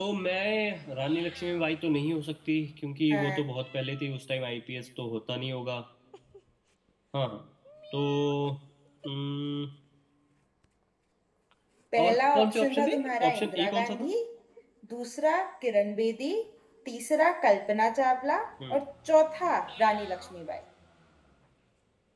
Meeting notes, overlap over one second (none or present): present